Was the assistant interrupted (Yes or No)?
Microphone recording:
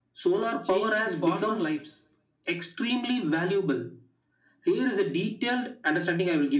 Yes